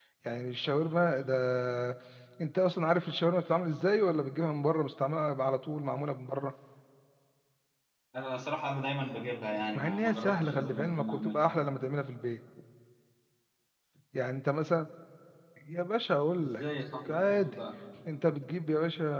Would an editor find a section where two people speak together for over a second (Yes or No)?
Yes